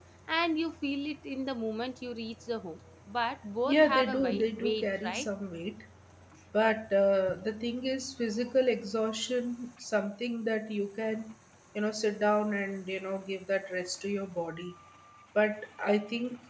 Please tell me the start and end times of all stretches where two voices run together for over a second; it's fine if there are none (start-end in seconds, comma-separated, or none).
3.7-5.3